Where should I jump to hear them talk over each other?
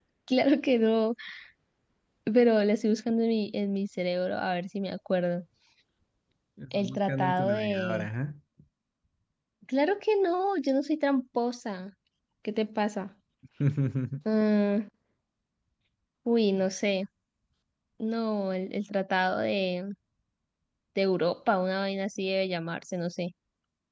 6.8 s

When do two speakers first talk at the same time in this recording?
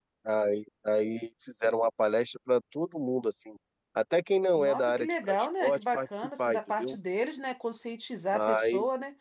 4.6 s

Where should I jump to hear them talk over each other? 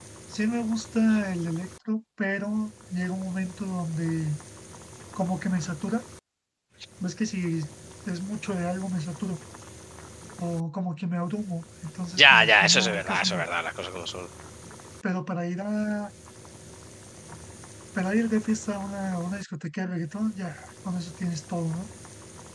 12.2 s

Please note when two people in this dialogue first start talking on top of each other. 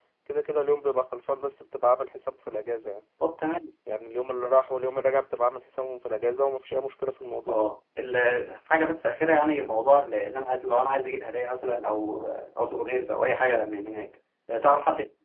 none

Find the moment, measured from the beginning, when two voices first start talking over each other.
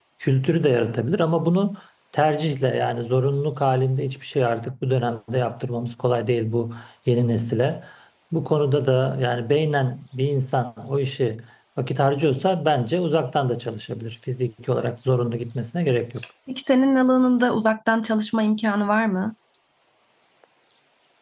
none

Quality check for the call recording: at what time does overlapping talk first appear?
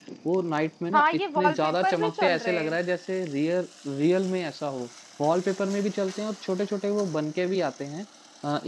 0.9 s

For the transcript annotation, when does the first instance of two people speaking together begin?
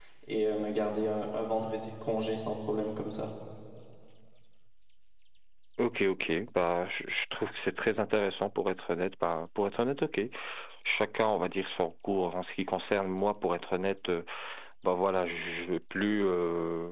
none

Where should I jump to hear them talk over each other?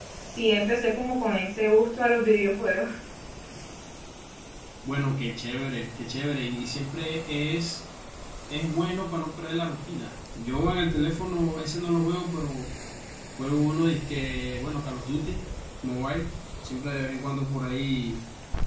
none

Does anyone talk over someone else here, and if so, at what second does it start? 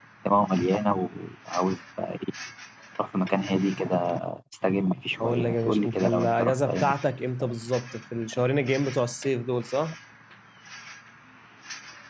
5.2 s

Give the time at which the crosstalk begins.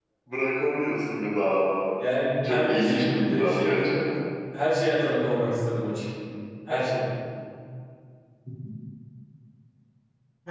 2.4 s

